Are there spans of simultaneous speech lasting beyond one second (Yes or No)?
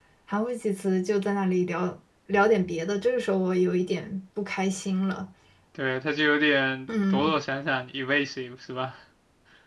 No